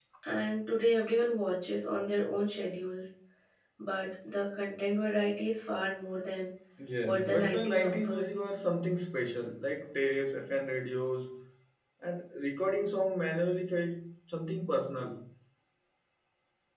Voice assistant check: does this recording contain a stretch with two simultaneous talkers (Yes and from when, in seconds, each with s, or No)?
Yes, from 7.0 s